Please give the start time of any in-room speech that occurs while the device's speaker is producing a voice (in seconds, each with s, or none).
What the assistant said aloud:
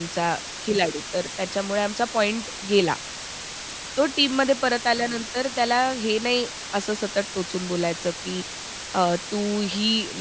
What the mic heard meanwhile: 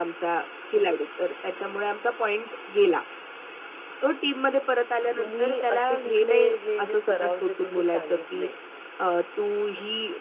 5.2 s